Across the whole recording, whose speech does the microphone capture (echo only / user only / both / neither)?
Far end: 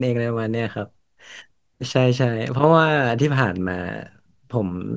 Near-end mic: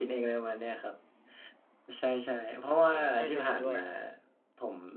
both